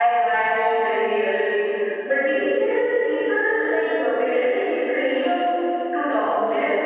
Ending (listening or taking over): taking over